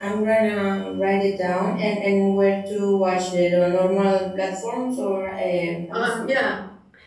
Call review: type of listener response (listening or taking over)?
taking over